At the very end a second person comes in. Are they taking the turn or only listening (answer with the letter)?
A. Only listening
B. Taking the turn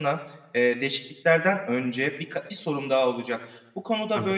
A